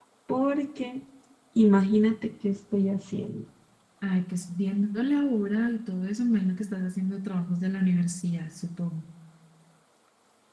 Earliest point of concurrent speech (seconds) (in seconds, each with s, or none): none